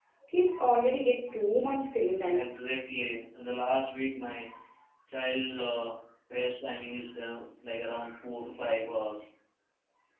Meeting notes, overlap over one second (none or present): none